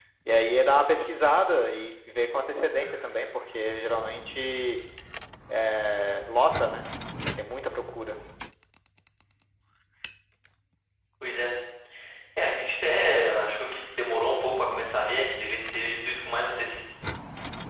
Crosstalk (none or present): none